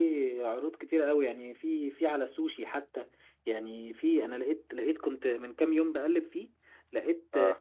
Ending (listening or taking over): listening